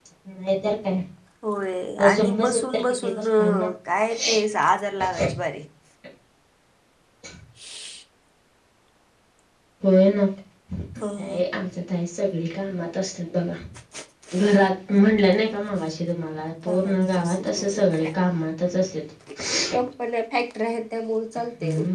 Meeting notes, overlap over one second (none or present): present